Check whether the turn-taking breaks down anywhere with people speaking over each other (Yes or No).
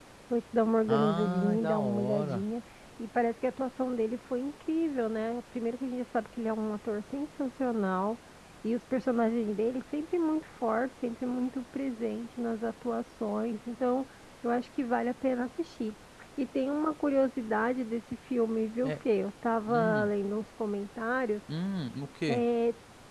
Yes